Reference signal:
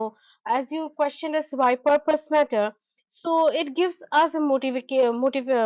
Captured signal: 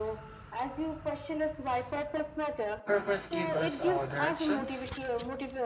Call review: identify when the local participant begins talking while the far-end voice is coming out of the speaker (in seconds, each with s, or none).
2.9 s